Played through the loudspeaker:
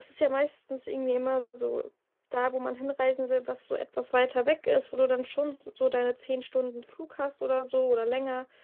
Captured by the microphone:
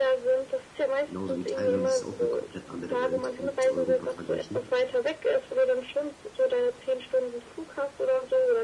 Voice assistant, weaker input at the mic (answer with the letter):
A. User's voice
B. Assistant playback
A